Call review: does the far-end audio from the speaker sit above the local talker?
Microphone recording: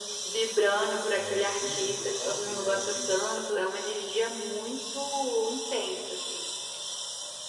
Yes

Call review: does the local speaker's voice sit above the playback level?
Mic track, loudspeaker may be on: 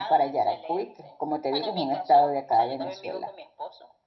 Yes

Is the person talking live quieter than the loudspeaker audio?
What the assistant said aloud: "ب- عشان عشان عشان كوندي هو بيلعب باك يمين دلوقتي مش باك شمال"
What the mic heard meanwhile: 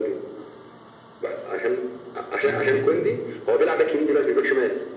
Yes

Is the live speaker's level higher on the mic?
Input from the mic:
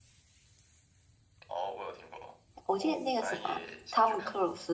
Yes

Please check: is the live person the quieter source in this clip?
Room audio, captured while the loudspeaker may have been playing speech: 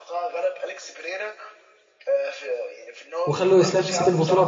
No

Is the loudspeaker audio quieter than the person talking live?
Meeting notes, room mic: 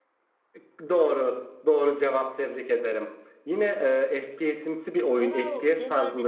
No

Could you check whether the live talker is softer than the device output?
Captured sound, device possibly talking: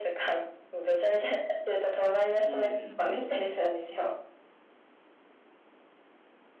Yes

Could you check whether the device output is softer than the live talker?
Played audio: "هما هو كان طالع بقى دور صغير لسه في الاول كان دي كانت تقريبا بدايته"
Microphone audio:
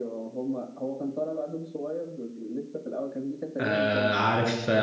Yes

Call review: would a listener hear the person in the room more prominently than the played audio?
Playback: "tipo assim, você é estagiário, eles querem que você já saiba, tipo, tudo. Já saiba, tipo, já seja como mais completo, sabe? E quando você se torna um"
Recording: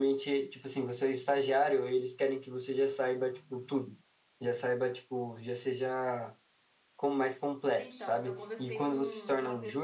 No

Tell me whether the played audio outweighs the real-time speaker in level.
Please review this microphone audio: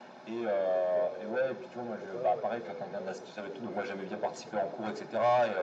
Yes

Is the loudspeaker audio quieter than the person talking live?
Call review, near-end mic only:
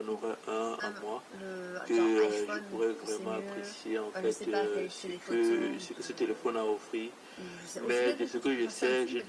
No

